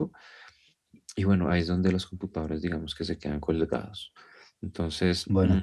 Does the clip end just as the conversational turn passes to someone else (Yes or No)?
No